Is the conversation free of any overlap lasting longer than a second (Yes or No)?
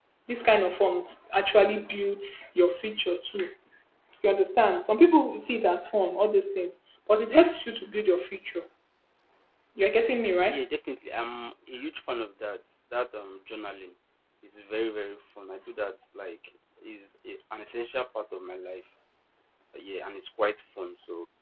Yes